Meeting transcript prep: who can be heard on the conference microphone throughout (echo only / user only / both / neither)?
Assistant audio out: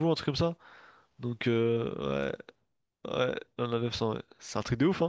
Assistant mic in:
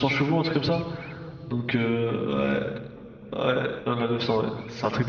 echo only